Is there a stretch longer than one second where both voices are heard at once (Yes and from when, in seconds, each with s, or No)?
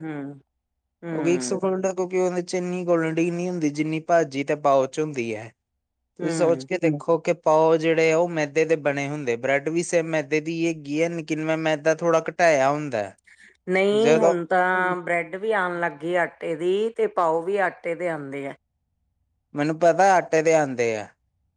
No